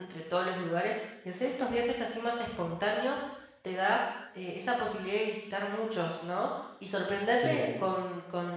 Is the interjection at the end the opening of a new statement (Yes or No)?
No